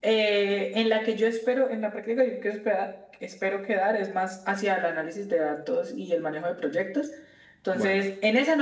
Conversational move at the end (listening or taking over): listening